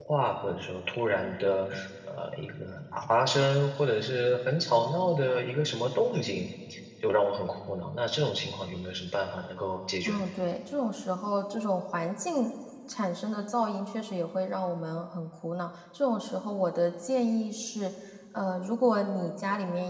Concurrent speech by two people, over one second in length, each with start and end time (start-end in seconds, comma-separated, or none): none